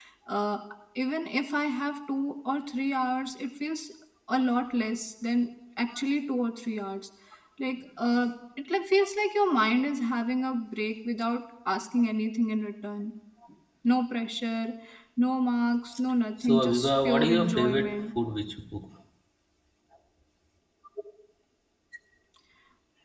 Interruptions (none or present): present